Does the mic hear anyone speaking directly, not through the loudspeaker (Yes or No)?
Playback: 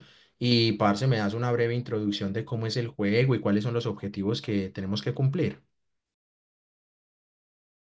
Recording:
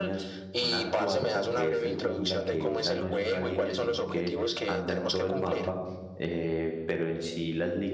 Yes